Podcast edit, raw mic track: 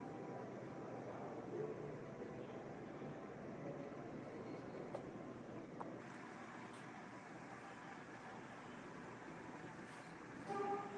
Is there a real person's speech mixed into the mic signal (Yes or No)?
No